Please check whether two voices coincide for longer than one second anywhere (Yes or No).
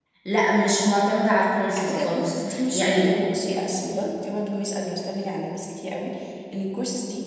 Yes